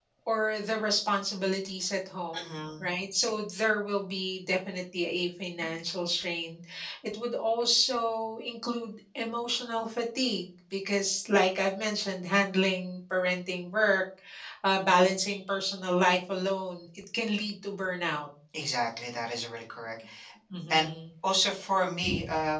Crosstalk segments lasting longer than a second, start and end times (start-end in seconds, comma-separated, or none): none